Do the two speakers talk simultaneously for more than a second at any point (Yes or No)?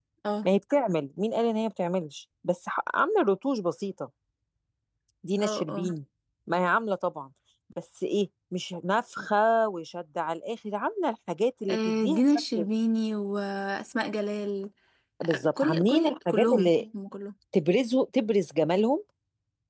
Yes